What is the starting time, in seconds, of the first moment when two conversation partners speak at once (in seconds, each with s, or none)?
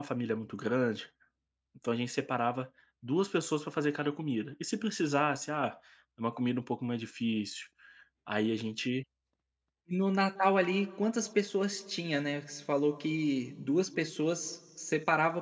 none